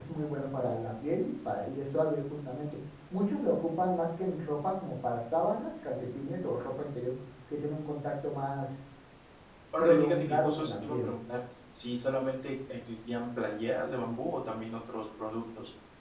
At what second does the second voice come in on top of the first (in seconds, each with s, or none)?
9.8 s